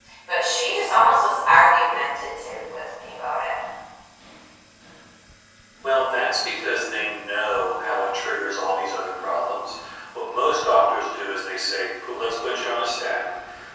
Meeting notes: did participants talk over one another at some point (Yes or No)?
No